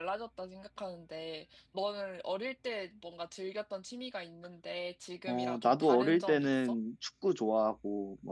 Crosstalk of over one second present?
Yes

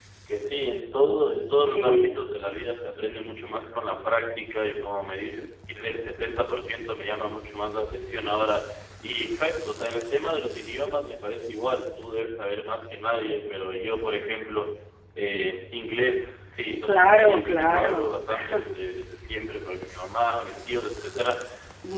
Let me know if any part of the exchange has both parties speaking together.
Yes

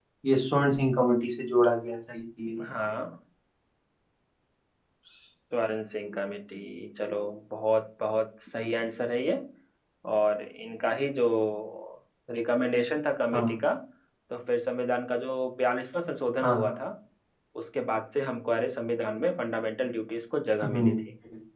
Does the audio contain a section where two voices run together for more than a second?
No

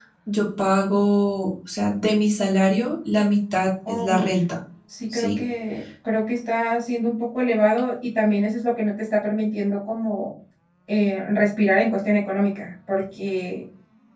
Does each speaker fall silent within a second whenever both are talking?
Yes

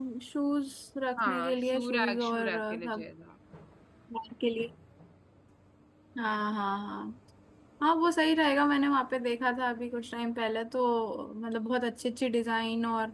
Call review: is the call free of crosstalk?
No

